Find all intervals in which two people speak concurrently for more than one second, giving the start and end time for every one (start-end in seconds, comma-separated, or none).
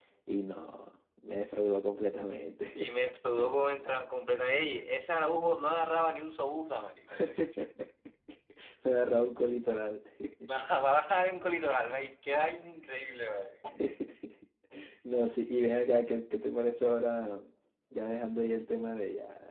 none